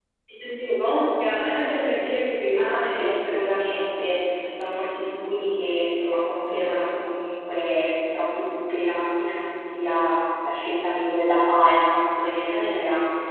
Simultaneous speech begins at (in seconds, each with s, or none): 2.5 s